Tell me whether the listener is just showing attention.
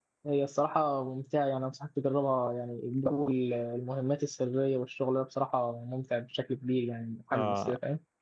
No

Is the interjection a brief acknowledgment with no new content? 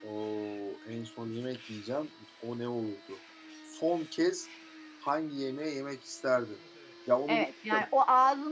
No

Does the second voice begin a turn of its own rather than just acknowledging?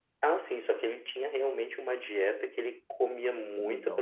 No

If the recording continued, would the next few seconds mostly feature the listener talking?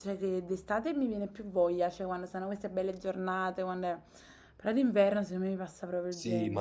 Yes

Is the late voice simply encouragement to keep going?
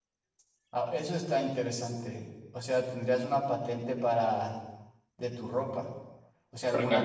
Yes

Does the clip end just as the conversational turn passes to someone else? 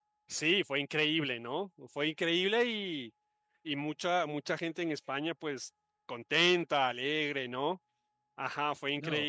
Yes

